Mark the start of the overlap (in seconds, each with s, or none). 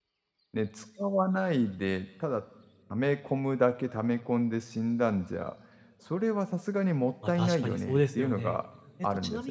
7.3 s